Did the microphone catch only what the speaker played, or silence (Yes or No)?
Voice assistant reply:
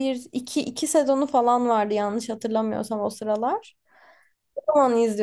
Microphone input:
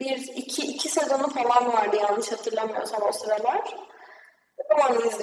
Yes